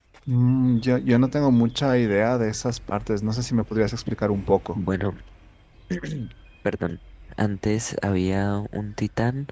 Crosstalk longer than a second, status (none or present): none